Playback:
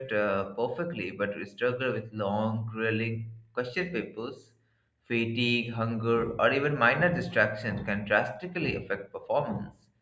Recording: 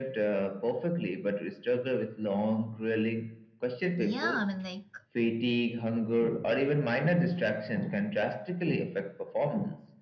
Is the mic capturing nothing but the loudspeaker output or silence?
No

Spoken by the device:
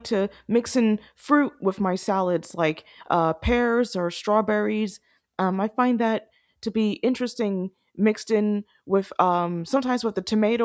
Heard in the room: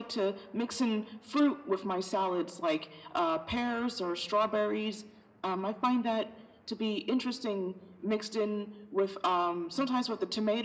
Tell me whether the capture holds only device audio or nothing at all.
Yes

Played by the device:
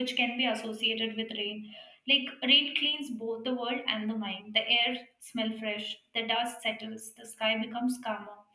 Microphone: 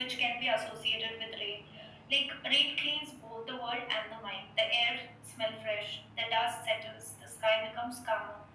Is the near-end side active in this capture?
No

